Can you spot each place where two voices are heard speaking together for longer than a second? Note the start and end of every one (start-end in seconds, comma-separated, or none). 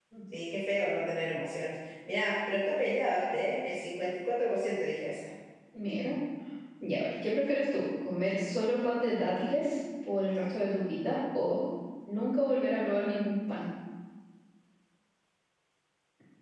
none